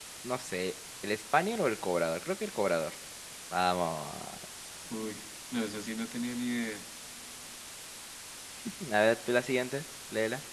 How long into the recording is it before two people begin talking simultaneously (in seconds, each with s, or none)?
none